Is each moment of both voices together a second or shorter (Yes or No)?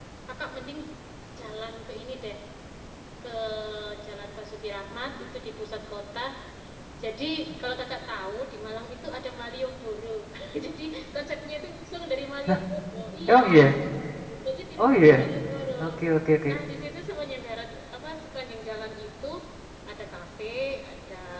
Yes